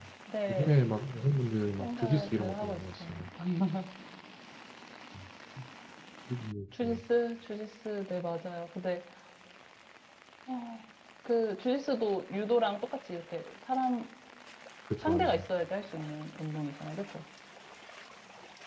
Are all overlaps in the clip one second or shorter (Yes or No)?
No